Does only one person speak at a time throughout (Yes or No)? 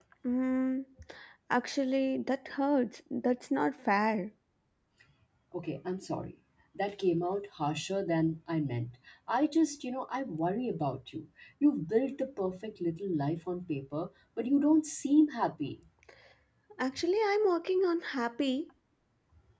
Yes